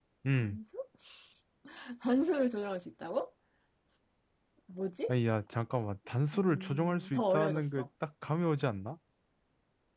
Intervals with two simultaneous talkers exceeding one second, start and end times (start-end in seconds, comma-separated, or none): 6.3-7.9